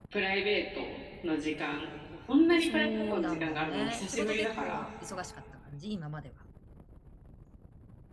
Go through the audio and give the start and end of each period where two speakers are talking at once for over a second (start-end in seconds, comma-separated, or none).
2.6-4.9